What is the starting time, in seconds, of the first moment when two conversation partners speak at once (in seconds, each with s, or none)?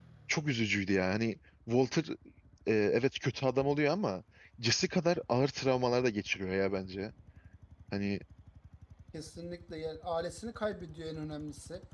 none